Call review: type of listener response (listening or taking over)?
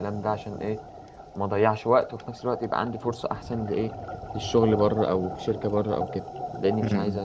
taking over